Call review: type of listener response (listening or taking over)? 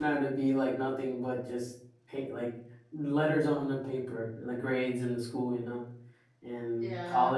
listening